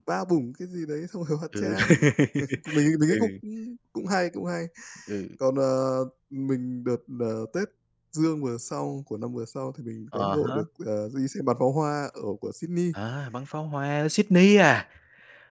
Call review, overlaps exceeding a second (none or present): none